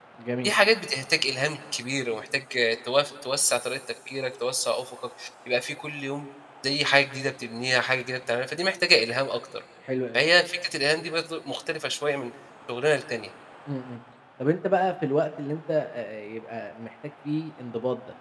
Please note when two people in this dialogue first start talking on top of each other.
none

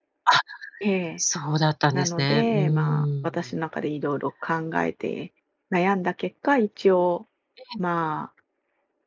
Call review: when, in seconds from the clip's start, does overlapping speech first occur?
2 s

